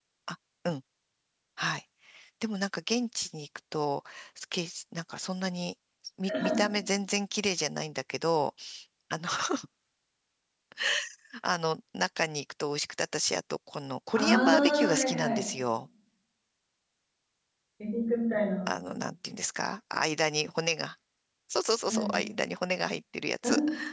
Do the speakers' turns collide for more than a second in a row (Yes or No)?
Yes